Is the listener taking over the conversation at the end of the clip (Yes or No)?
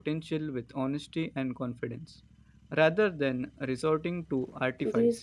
Yes